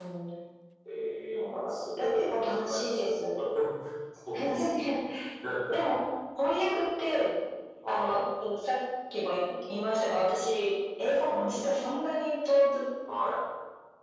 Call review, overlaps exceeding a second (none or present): present